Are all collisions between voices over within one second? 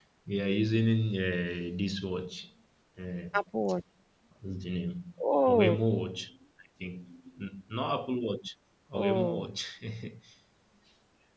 Yes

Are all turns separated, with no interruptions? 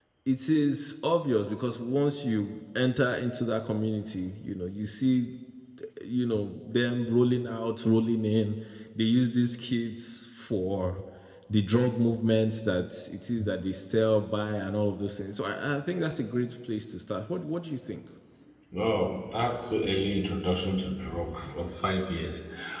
Yes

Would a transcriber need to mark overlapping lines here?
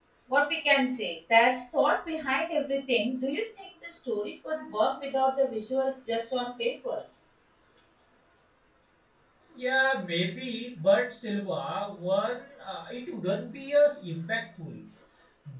No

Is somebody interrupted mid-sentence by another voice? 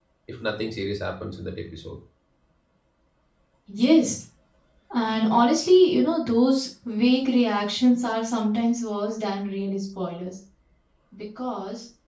No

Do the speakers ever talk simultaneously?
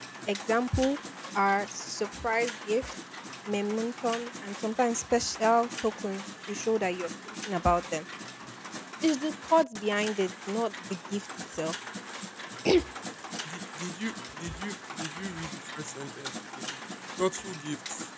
No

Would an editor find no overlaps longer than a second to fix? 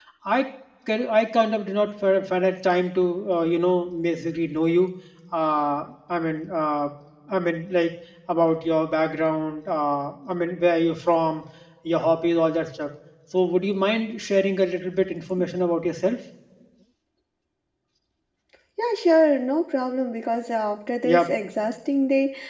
Yes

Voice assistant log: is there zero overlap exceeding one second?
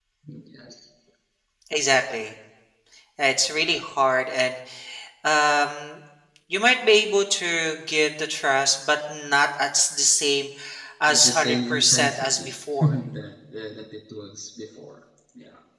No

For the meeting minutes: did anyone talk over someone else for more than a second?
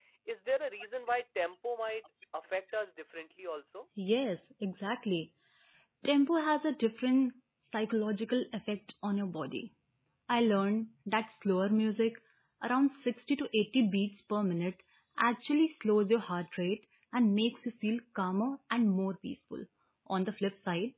No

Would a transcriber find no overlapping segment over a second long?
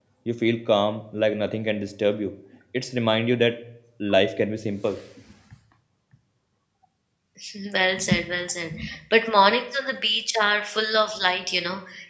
Yes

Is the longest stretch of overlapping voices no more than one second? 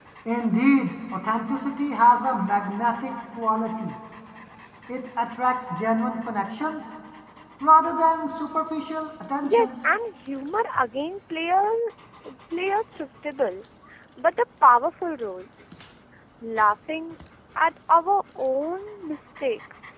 Yes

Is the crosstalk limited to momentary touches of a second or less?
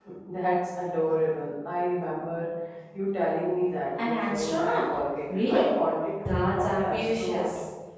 No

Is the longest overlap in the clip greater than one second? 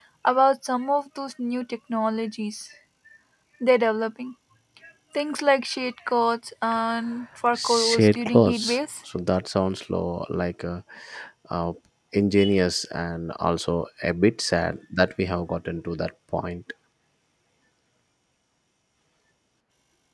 Yes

